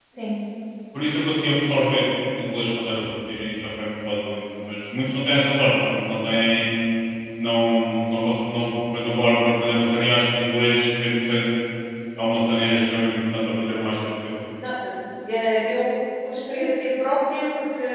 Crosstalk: none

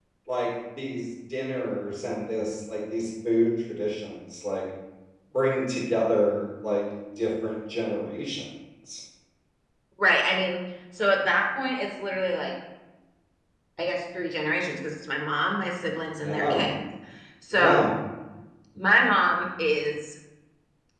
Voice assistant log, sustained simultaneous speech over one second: none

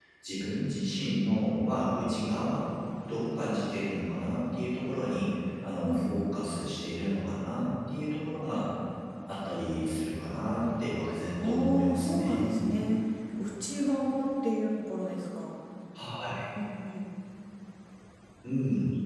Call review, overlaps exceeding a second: present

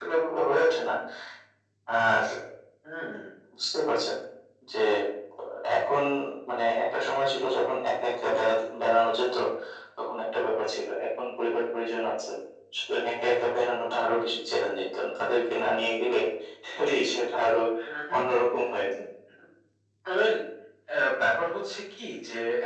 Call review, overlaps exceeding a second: none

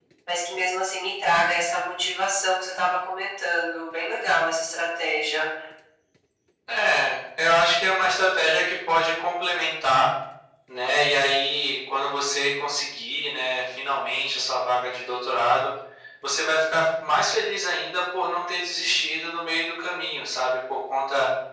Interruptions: none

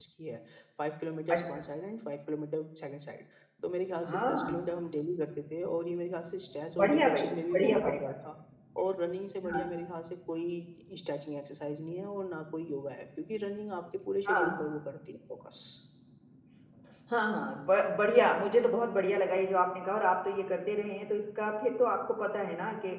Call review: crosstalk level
present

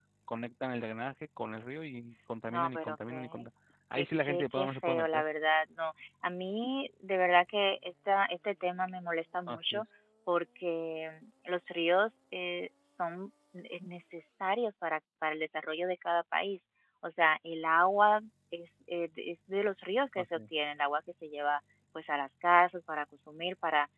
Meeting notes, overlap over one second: present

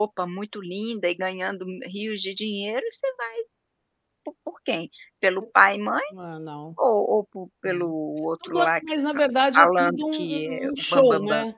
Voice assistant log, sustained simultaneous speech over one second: present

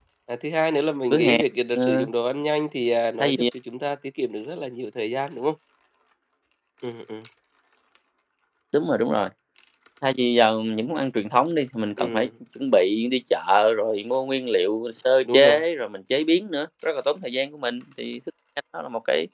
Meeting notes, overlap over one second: none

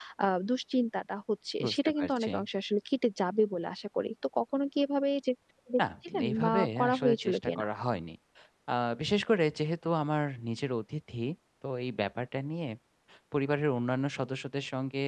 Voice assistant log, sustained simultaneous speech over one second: present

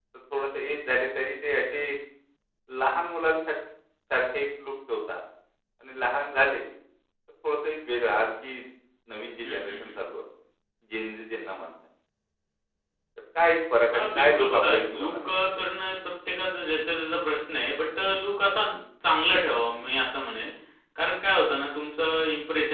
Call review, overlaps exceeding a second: present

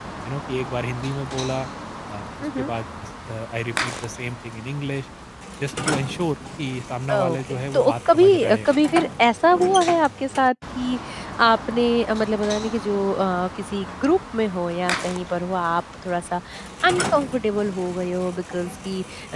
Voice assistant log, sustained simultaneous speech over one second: present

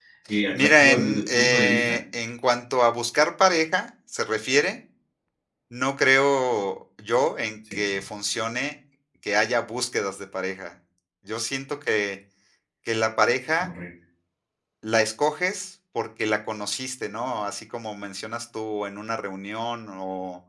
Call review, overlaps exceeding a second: present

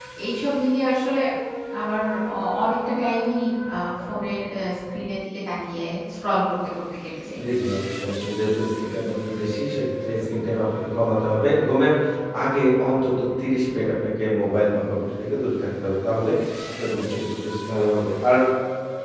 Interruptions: none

